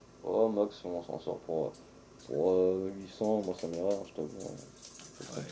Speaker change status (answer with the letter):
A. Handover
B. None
A